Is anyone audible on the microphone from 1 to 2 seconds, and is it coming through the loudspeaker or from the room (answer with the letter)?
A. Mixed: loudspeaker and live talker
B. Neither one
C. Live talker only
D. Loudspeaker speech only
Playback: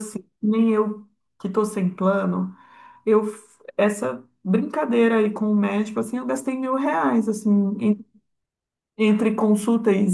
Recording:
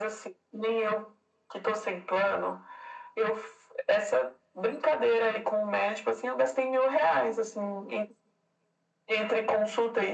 D